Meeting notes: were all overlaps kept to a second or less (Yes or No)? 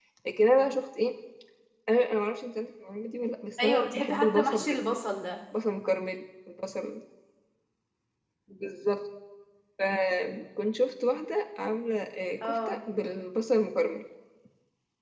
No